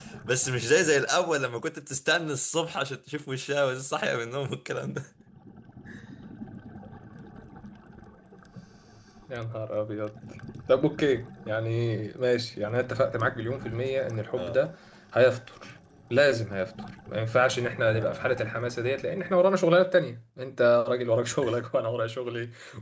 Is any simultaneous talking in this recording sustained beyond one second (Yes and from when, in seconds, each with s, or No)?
No